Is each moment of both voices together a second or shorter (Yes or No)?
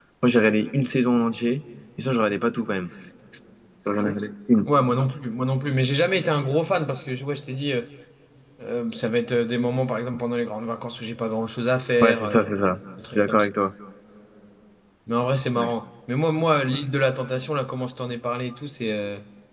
Yes